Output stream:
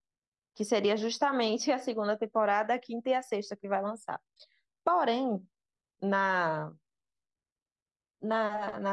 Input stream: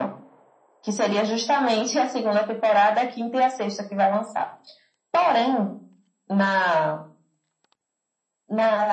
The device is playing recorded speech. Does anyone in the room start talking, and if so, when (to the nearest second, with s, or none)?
none